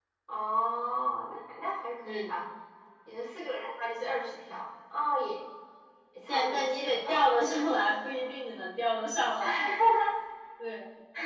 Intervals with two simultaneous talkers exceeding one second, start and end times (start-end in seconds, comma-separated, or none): 6.3-7.8